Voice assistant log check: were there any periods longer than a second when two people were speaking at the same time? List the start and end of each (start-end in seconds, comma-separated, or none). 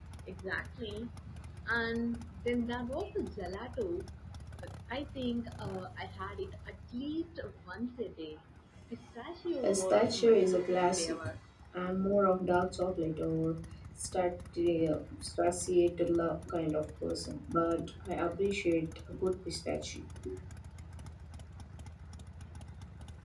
9.6-11.2